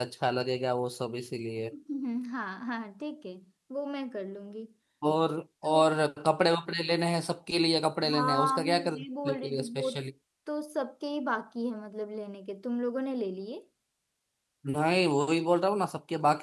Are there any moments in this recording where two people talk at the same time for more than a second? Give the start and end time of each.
8.1-9.9

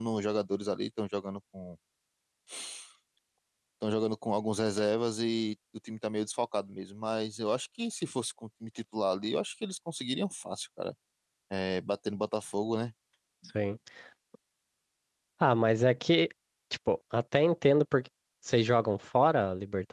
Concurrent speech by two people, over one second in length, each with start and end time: none

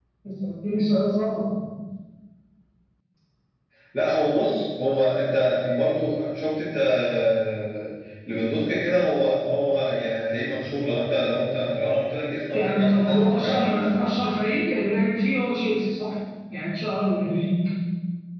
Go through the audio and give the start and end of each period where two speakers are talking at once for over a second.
12.5-14.1

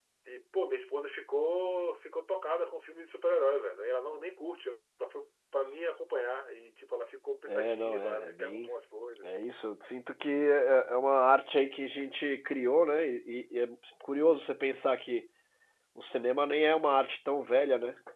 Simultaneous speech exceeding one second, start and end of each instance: 7.5-8.7

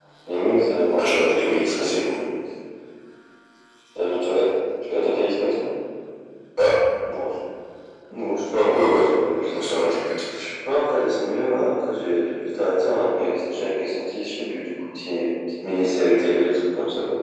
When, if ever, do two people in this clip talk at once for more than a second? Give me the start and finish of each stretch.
1.0-2.2

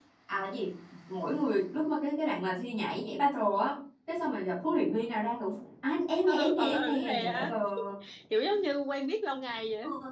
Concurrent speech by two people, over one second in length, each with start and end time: 6.2-7.5

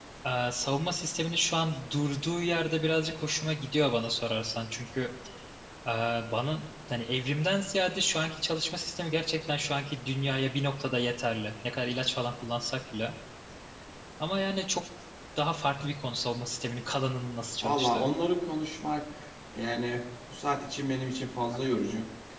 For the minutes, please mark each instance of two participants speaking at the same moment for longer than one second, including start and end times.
none

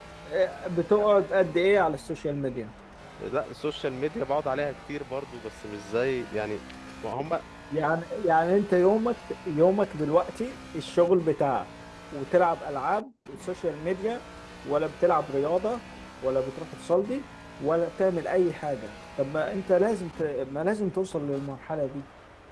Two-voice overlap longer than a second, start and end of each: none

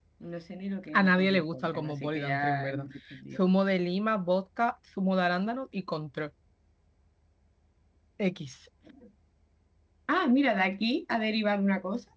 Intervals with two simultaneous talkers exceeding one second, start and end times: 0.9-2.9

